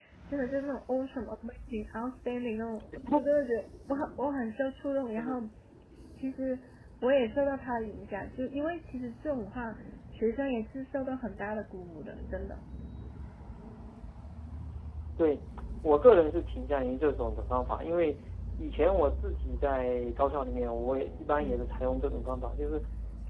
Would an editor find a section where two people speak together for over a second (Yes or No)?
No